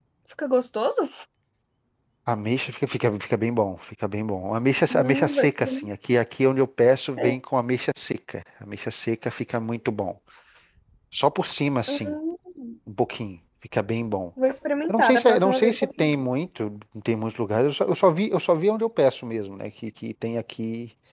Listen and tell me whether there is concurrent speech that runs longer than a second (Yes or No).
Yes